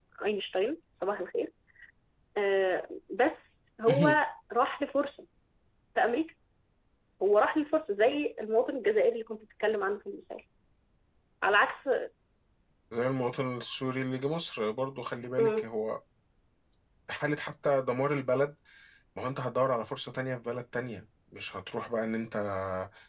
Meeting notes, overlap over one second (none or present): none